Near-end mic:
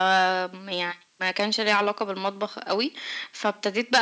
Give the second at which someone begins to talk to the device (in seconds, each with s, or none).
none